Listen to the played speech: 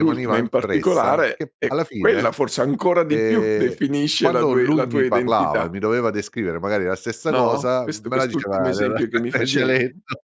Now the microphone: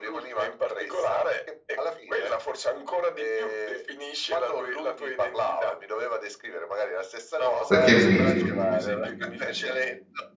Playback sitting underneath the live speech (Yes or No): Yes